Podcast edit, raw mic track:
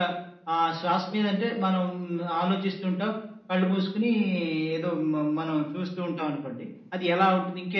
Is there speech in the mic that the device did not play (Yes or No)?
No